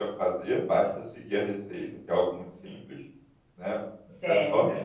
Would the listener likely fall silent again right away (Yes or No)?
Yes